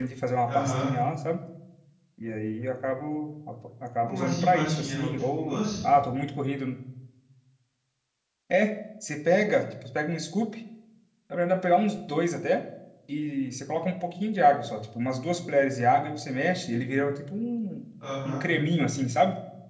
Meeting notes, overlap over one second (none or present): present